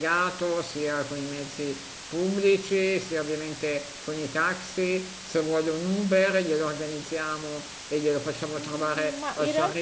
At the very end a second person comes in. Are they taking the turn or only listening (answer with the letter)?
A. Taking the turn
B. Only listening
A